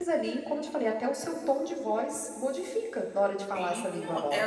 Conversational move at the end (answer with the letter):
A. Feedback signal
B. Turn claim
B